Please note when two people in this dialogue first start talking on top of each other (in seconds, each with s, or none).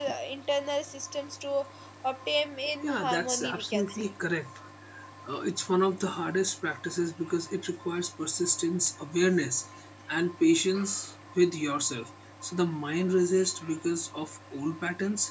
2.8 s